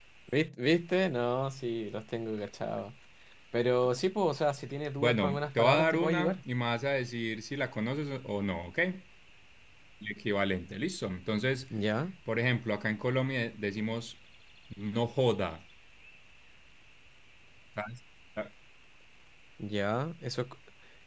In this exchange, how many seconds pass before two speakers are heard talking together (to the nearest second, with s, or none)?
5 s